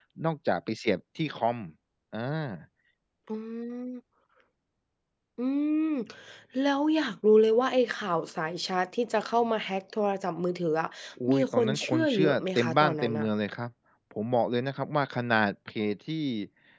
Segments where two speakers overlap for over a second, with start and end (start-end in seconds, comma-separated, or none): 11.3-13.3